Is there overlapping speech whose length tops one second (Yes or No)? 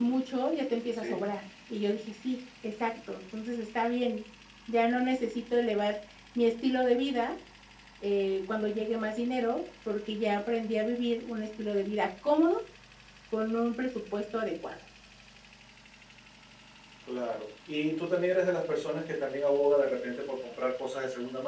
No